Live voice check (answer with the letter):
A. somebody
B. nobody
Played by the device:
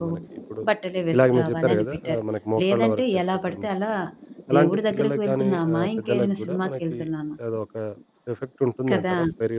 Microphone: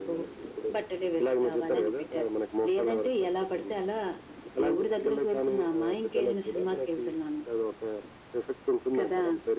B